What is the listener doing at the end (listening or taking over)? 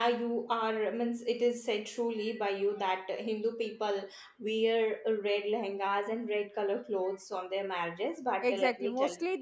taking over